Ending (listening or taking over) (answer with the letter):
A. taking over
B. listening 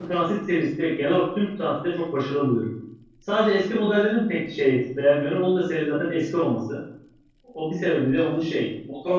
B